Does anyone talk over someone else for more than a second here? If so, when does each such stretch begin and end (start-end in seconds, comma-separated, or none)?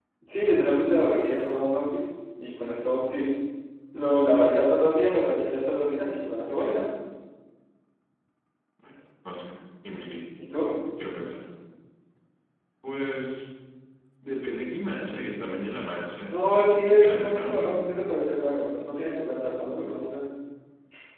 16.3-17.8